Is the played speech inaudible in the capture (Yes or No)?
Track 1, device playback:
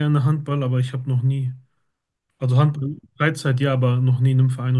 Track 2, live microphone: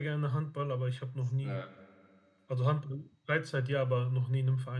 No